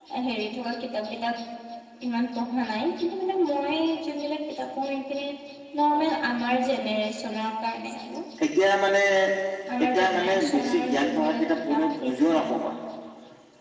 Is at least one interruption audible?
Yes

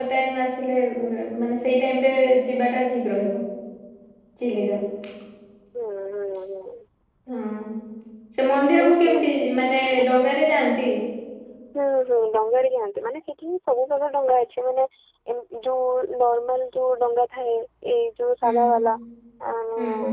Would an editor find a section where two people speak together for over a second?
No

